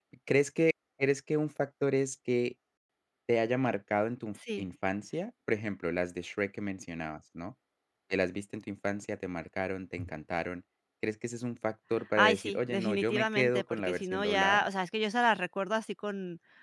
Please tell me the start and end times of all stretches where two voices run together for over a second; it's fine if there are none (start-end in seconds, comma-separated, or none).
12.2-14.6